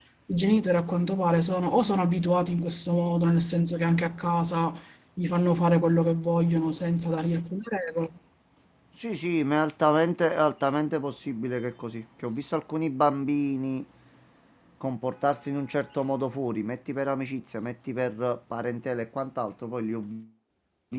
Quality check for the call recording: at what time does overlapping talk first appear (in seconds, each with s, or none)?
none